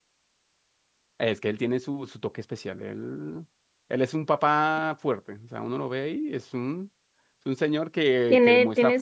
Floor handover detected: Yes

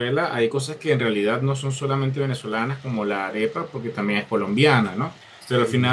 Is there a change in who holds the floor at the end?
No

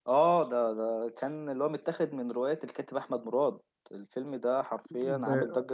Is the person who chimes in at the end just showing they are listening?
No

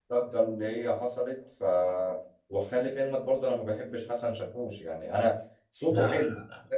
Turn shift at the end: No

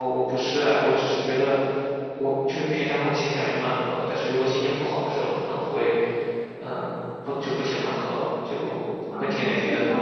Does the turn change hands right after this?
Yes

